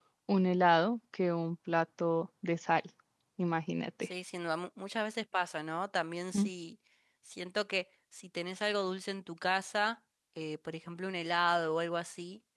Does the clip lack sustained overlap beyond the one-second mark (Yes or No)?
Yes